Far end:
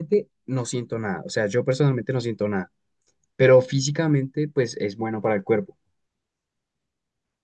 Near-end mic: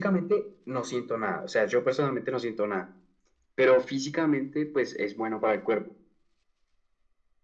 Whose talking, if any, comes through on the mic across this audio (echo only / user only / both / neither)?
echo only